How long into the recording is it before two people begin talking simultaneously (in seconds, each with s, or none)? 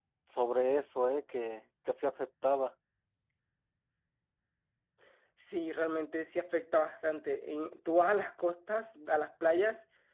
none